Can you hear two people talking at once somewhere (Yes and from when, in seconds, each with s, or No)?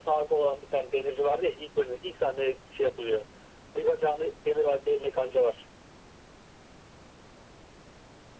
No